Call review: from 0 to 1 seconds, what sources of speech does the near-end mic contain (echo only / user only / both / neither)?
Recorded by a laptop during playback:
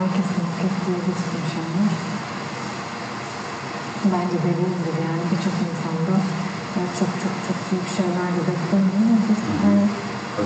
echo only